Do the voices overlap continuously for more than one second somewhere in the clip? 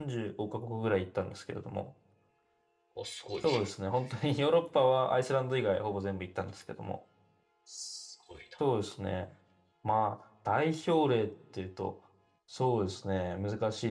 No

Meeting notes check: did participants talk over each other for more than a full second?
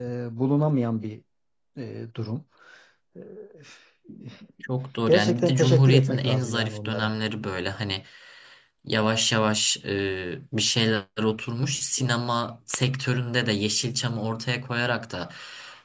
Yes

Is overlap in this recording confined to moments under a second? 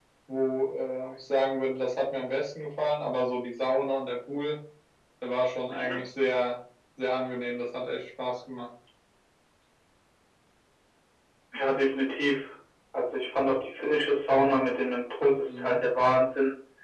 Yes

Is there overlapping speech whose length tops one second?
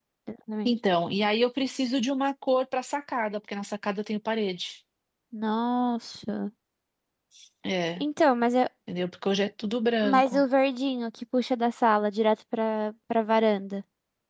No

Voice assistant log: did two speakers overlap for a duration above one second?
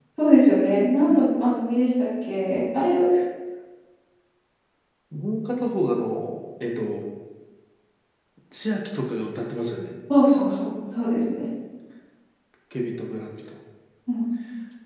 No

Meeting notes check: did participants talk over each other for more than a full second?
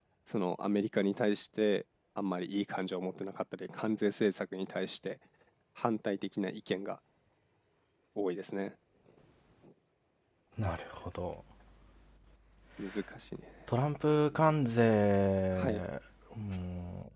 No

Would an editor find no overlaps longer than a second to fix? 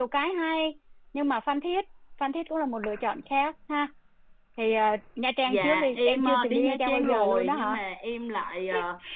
No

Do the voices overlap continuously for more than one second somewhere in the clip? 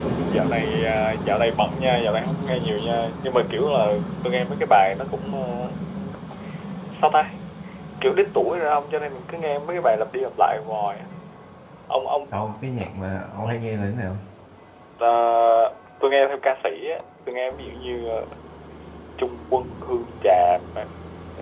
No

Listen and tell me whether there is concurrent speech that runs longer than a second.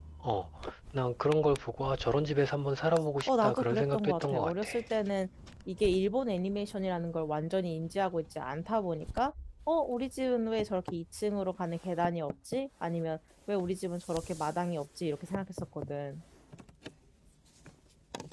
Yes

